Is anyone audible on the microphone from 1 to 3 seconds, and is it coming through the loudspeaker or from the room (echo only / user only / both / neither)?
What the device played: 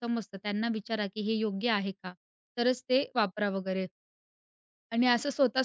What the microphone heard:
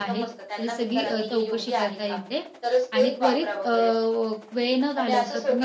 both